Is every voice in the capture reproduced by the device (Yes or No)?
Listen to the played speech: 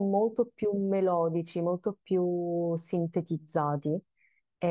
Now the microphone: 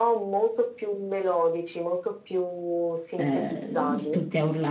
No